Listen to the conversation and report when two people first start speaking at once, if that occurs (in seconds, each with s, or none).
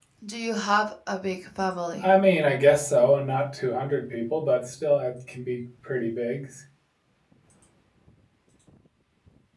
none